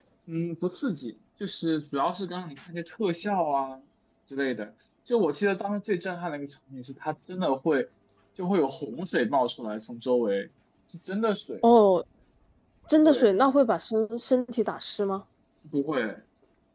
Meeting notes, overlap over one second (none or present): none